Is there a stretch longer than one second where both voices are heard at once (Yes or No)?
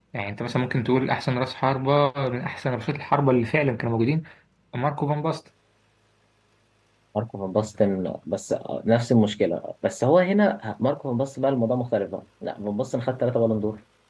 No